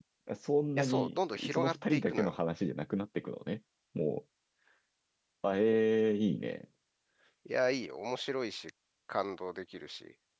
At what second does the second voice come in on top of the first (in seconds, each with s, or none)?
0.7 s